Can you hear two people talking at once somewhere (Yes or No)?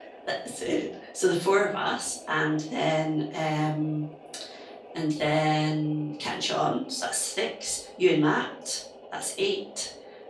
No